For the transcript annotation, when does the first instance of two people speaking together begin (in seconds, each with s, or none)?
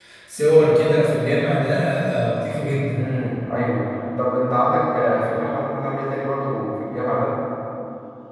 none